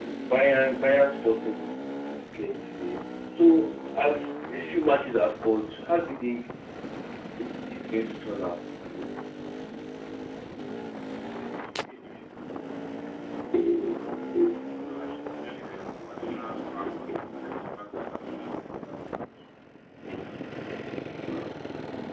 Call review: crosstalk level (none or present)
none